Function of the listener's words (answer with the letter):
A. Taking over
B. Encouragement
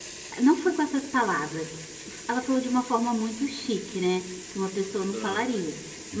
B